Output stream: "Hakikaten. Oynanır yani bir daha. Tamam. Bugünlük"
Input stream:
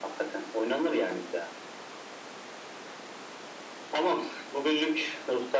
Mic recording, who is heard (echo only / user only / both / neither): echo only